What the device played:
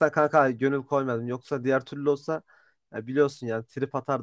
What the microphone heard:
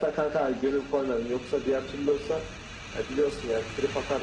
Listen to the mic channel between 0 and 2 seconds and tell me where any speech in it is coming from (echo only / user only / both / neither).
echo only